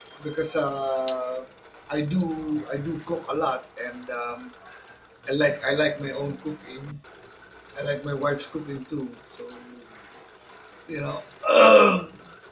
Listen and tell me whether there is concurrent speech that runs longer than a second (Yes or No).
No